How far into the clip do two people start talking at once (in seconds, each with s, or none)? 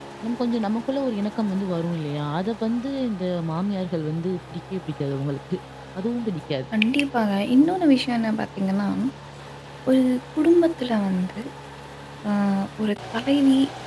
none